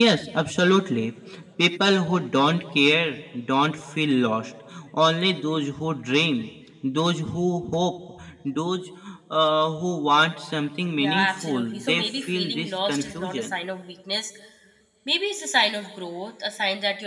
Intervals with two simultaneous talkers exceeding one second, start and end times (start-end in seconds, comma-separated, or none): 11.0-13.5